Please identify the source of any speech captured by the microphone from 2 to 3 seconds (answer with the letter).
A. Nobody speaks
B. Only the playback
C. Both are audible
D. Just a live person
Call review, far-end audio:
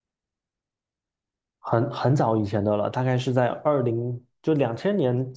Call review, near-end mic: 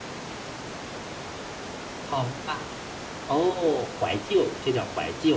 D